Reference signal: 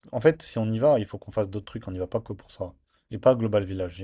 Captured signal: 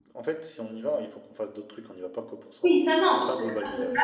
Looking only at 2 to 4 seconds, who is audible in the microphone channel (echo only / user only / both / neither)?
both